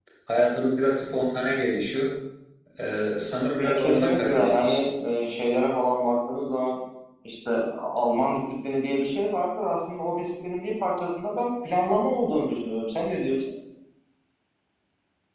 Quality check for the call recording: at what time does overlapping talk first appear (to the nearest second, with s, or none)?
4 s